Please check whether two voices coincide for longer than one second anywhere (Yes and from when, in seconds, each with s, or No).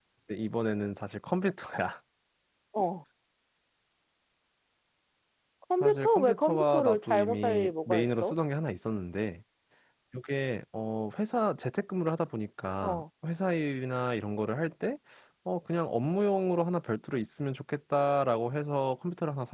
Yes, from 5.8 s